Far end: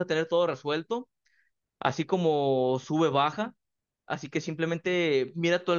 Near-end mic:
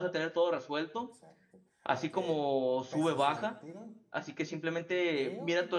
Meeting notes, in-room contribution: present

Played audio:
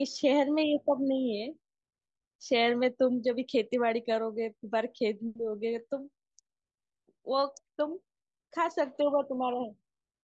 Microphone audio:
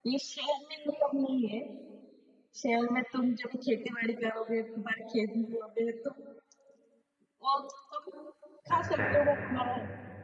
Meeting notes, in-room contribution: present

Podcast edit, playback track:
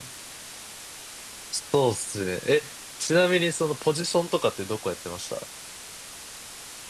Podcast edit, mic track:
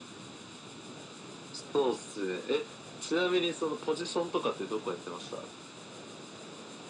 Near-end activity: none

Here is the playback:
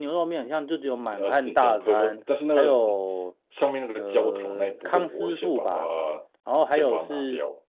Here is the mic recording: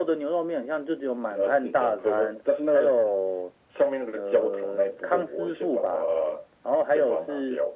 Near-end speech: none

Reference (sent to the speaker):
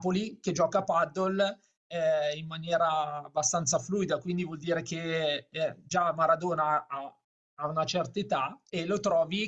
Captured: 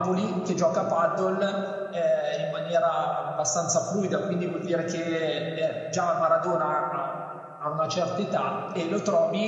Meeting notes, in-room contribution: none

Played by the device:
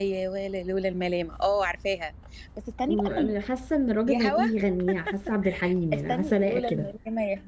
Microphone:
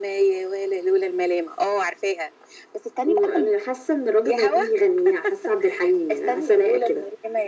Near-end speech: none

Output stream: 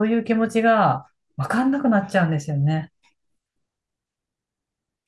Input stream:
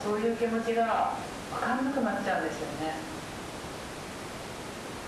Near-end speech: none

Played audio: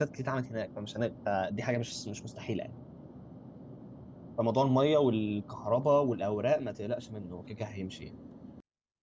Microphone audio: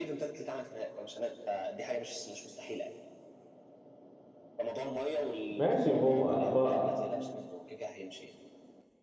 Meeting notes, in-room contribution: present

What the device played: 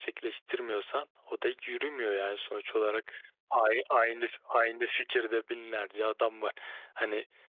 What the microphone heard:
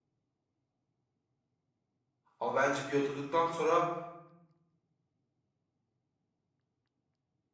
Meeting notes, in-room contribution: present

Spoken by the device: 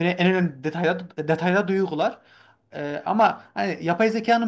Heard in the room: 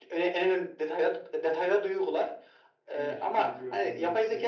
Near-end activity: present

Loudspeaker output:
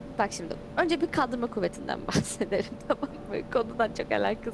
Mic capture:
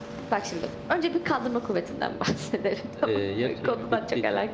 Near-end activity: present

